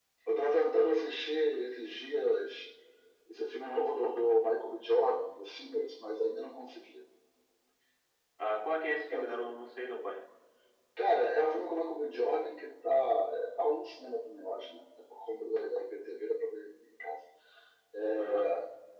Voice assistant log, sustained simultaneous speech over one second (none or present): none